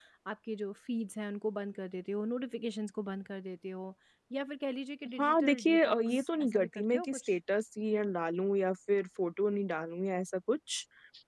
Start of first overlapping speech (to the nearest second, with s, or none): 5 s